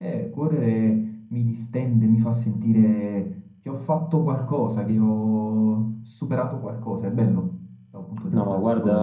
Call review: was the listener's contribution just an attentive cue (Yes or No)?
No